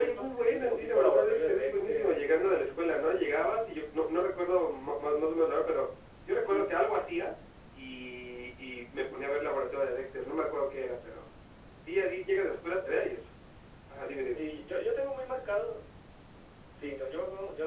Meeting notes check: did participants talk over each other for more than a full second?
Yes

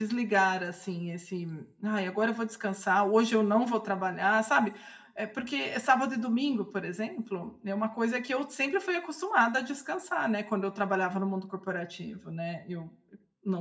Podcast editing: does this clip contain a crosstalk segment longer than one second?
No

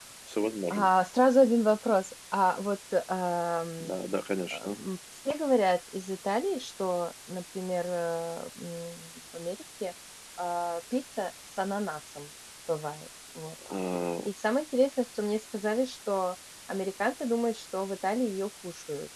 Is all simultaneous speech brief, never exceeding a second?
Yes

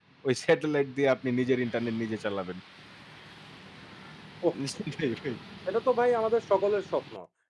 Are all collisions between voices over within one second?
Yes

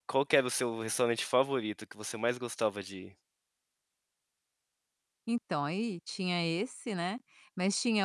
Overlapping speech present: No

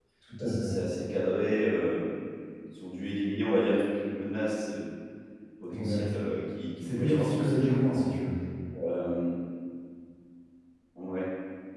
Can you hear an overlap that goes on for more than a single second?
Yes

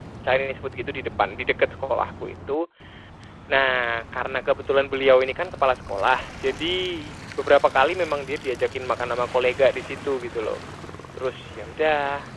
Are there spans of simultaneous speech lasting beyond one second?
No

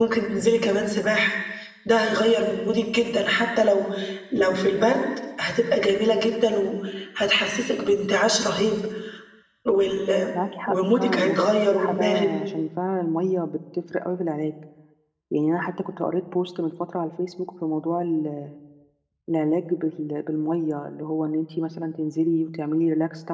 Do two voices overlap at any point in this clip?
Yes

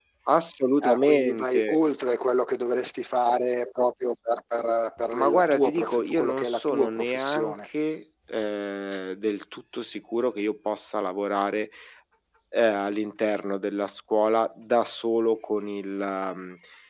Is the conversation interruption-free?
No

